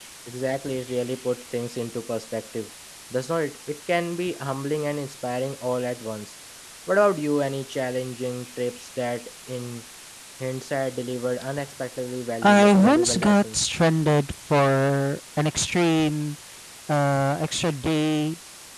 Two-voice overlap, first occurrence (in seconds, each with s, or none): 12.4 s